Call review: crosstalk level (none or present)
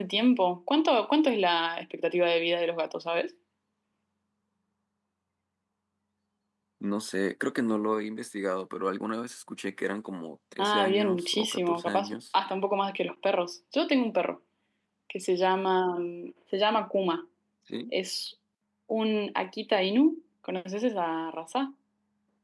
present